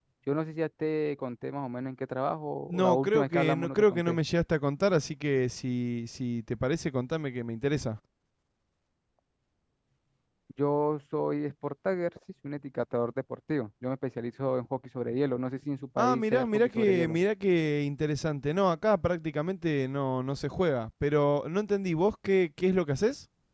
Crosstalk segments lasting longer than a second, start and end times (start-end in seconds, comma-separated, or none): 2.7-4.2, 16.0-17.2